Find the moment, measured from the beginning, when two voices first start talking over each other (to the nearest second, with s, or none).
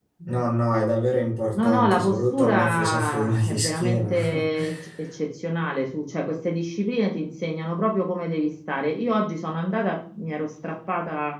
2 s